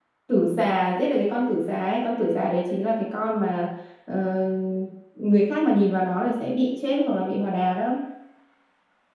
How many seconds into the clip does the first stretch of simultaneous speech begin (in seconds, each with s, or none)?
none